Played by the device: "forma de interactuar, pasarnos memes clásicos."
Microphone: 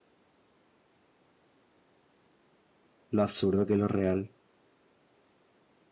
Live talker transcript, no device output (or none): lo absurdo que lo real.